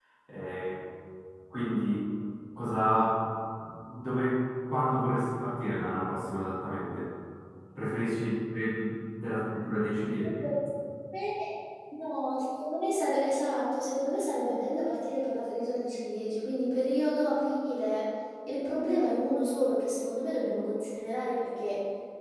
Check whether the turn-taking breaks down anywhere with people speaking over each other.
No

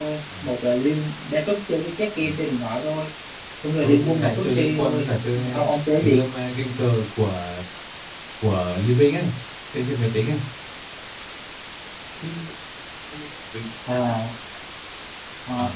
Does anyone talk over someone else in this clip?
Yes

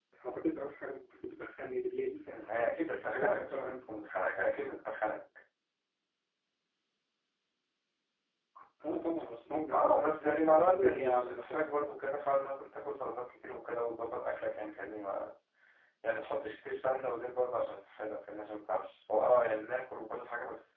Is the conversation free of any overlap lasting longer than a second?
No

